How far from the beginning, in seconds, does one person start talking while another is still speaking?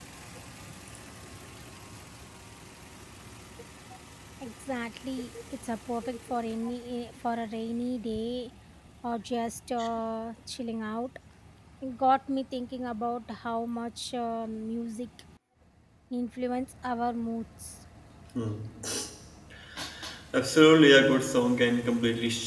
none

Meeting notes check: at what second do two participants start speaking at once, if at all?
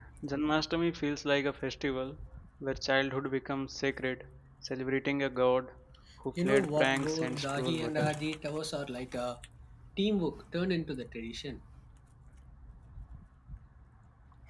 6.4 s

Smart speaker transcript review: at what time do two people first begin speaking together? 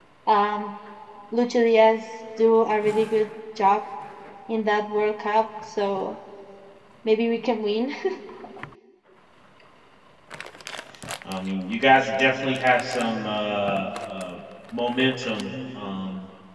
none

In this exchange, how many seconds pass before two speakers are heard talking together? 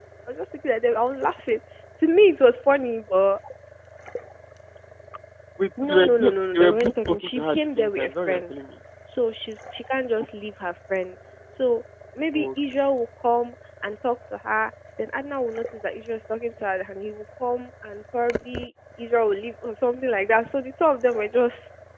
5.8 s

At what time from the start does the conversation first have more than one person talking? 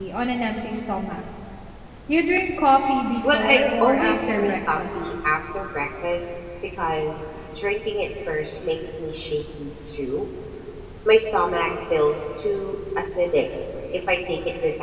3.2 s

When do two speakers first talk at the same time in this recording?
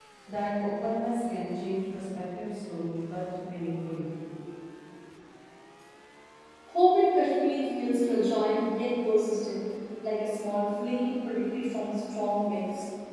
none

